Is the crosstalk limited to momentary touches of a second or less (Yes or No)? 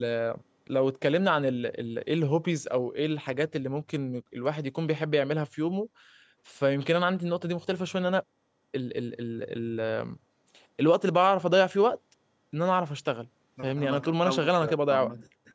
No